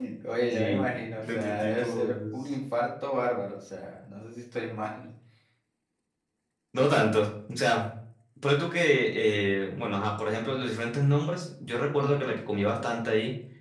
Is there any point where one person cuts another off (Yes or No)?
Yes